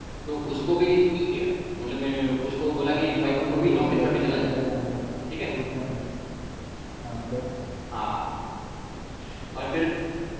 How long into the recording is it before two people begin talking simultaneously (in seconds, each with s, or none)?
2.9 s